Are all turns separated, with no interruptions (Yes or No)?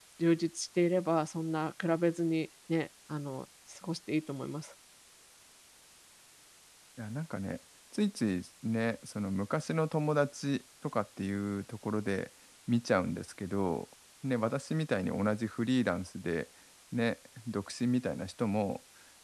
Yes